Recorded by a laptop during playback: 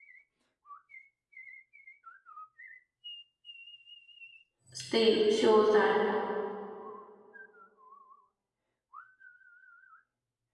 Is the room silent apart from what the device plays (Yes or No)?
No